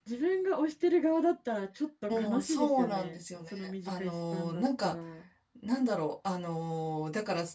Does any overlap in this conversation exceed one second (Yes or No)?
Yes